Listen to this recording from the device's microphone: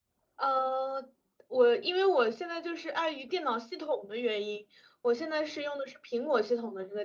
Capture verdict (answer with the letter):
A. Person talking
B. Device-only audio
A